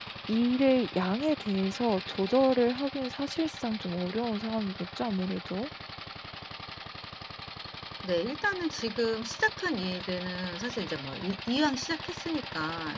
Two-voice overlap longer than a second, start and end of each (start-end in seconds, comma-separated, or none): none